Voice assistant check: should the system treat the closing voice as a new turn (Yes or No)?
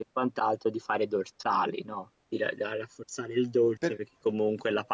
No